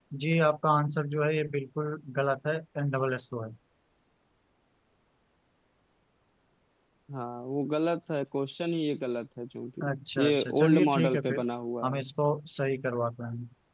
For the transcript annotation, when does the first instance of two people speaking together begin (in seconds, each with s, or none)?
10.2 s